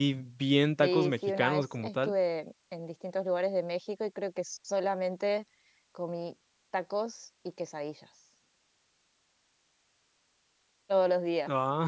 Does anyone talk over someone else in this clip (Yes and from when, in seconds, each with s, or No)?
Yes, from 0.8 s